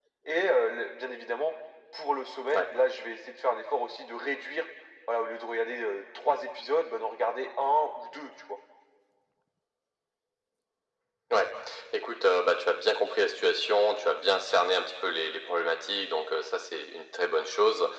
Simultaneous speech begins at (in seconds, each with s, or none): none